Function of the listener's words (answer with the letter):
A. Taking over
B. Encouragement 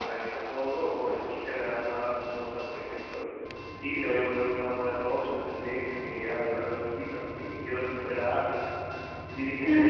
A